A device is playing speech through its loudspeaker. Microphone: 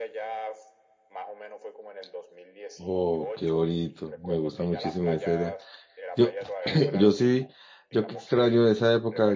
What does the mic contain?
both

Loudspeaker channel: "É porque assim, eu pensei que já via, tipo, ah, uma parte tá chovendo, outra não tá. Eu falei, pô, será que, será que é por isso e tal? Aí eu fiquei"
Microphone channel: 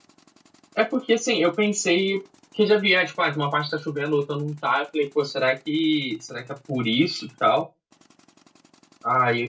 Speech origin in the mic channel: echo only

